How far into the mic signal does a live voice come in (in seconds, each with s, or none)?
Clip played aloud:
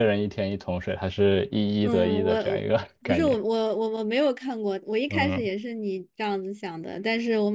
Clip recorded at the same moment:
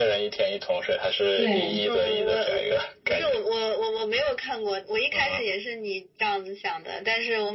1.4 s